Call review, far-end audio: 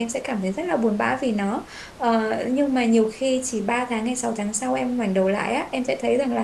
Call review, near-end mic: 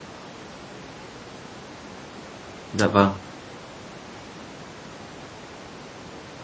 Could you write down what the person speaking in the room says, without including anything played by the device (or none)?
dạ vâng